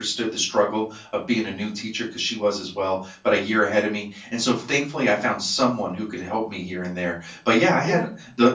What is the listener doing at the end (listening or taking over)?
listening